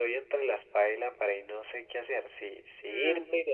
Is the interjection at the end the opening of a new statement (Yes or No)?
No